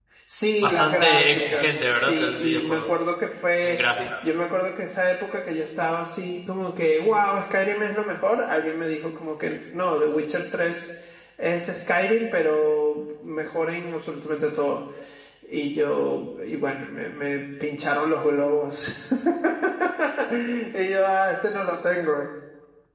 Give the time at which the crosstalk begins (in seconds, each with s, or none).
0.6 s